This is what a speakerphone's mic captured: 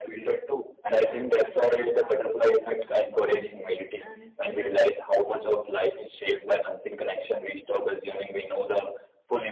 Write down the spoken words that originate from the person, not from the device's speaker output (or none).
that the real impact often takes time and small